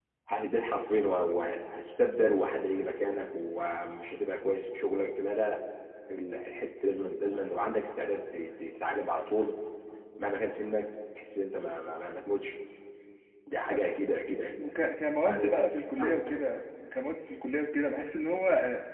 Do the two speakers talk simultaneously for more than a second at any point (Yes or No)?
No